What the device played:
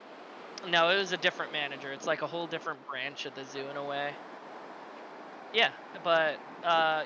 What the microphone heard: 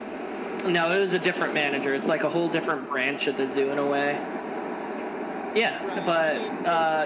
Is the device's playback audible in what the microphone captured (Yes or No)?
Yes